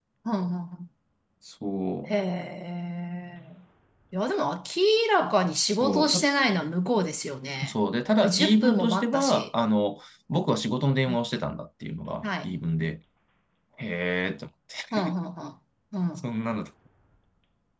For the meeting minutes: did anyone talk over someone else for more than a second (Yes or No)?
Yes